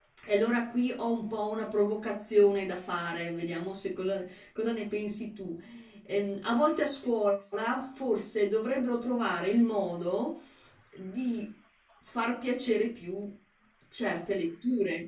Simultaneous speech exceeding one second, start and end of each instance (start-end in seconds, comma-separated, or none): none